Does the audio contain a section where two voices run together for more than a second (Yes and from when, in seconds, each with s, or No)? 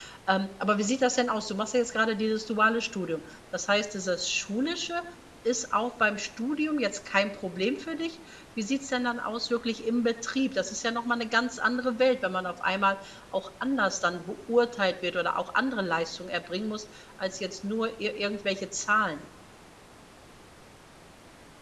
No